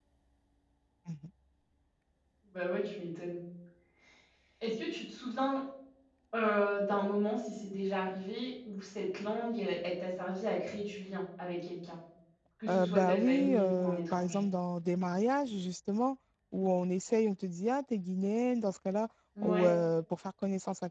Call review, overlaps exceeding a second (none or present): present